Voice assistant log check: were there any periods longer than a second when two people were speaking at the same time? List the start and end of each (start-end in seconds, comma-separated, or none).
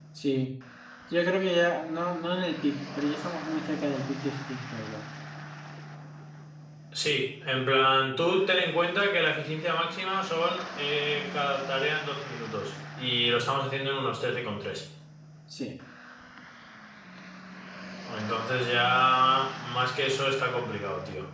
none